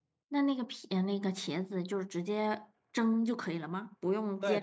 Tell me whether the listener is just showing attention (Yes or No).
No